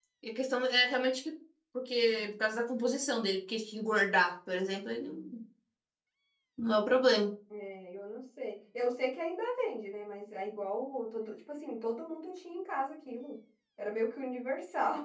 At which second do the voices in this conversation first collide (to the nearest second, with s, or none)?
none